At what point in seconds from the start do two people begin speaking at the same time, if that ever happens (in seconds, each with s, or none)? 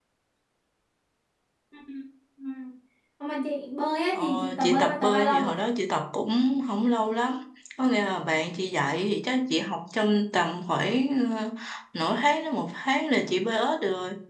4.1 s